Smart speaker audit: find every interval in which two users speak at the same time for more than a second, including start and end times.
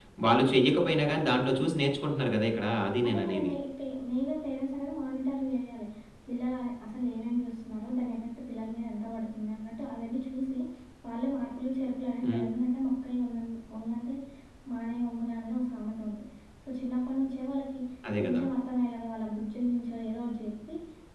none

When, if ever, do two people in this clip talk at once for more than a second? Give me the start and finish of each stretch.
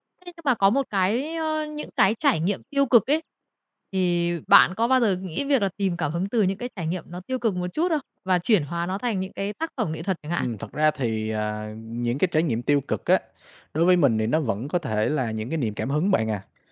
none

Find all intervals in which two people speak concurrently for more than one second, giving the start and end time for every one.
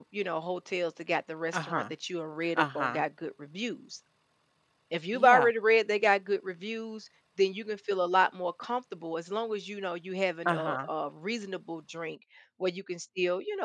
none

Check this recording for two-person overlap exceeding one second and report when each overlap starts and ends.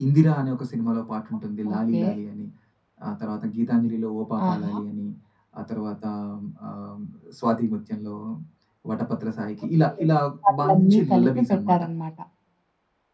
10.6-11.8

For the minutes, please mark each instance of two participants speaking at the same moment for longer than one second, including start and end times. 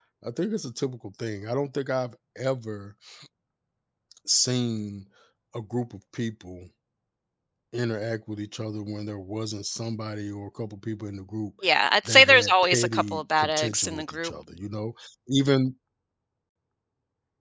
12.0-14.3

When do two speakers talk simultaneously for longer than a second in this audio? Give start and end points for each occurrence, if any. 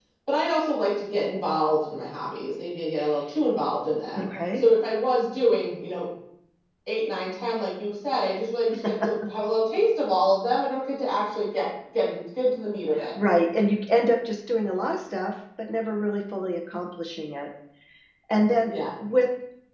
none

